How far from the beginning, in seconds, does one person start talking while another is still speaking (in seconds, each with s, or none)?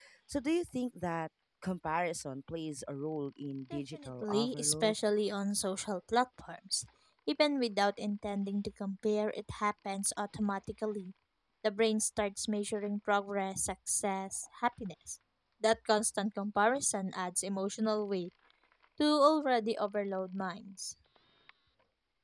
3.7 s